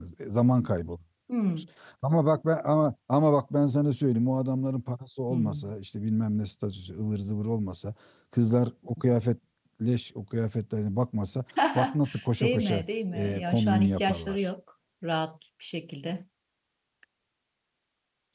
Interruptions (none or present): present